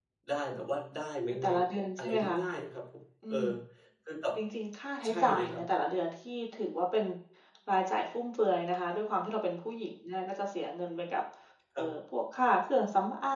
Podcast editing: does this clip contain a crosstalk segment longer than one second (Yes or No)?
No